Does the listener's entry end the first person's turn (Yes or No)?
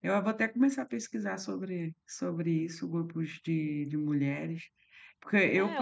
Yes